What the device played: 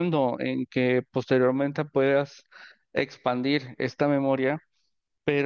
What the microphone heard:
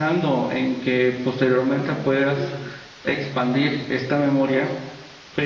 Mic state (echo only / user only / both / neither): both